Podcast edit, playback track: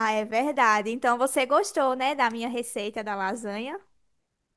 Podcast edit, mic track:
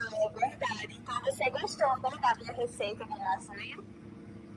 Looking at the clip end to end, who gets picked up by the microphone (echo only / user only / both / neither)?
echo only